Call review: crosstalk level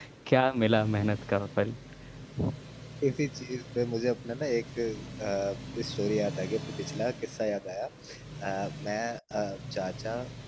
none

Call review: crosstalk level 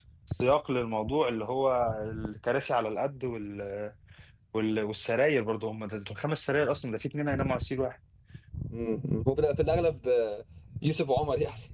none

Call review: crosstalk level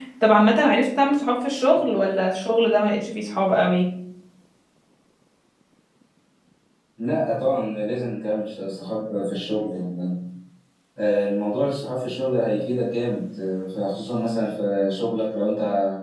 none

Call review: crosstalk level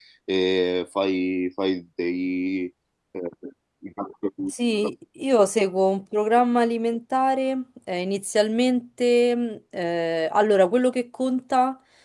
none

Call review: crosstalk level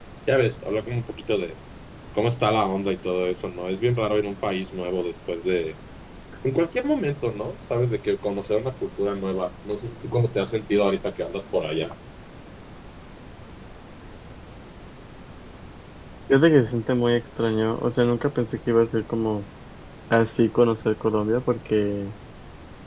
none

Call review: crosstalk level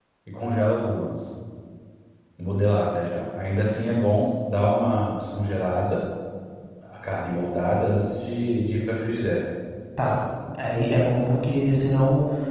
none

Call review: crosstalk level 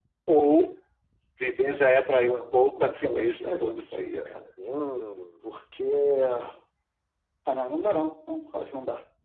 present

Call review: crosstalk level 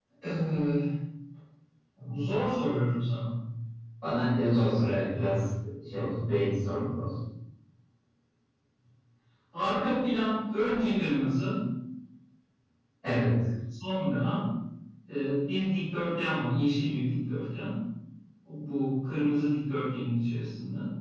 none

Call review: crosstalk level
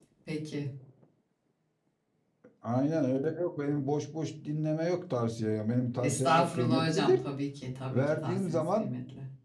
present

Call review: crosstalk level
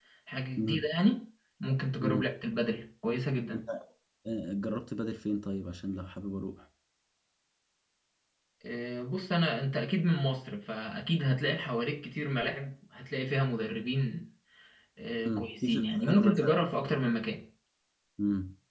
present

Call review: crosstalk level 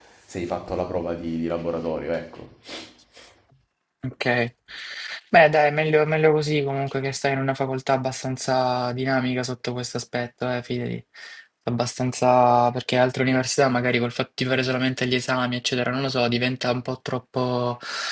none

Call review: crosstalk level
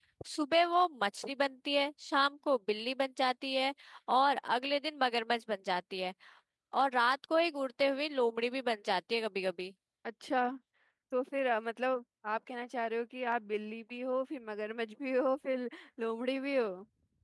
none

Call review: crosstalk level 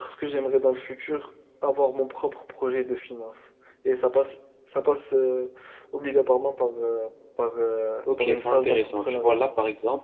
present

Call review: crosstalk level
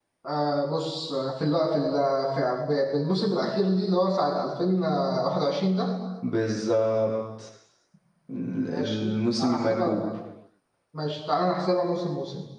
present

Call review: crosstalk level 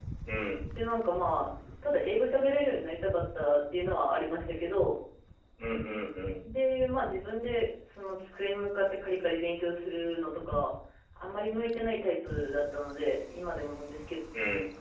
none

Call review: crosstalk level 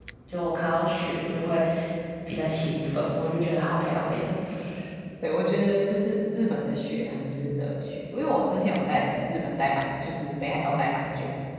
none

